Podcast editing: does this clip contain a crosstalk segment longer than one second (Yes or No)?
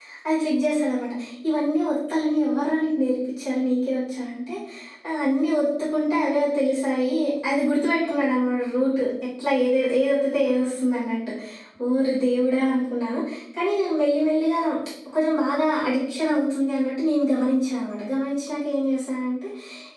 No